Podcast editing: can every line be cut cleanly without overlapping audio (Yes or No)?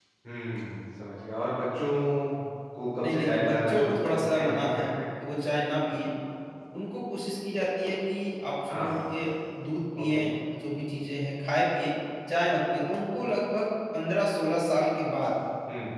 No